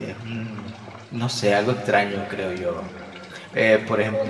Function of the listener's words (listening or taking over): listening